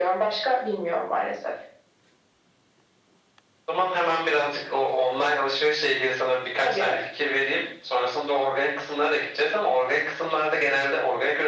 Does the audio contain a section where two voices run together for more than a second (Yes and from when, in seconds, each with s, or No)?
No